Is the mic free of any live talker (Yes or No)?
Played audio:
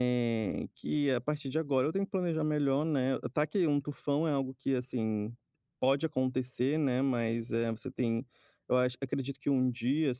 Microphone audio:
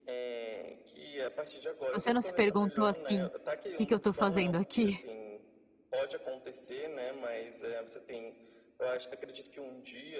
No